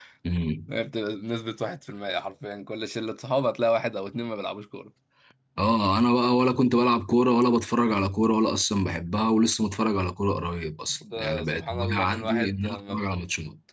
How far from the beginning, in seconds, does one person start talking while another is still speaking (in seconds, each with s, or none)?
11.0 s